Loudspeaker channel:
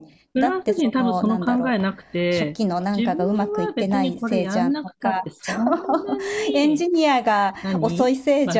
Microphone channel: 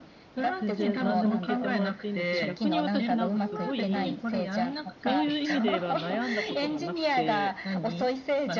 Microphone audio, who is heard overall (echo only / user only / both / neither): both